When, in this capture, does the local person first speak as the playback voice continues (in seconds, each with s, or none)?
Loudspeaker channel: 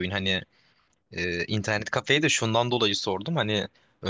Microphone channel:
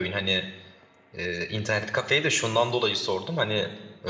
none